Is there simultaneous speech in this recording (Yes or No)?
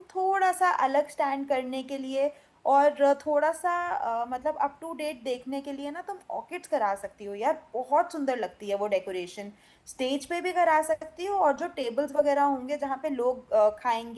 No